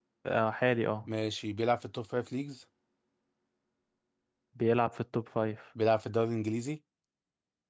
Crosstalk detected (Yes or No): No